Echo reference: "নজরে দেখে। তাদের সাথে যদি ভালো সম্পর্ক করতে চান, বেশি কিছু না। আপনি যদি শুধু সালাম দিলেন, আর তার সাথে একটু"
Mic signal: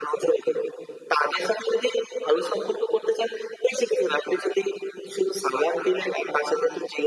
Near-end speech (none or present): none